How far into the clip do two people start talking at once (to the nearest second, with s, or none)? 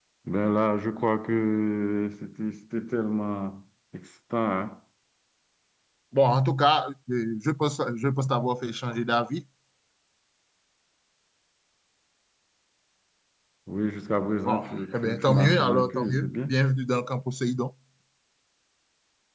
14 s